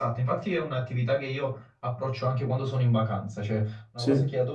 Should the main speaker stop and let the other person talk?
No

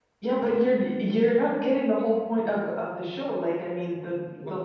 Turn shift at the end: No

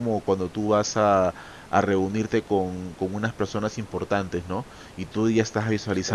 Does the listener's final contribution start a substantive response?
No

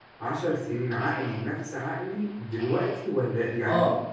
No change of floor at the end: No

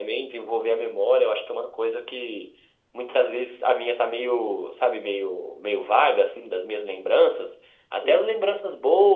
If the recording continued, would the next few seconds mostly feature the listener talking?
No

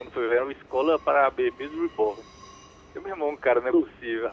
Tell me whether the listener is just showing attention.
Yes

